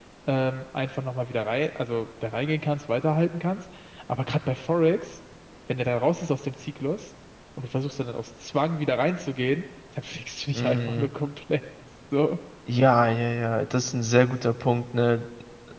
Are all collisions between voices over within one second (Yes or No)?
Yes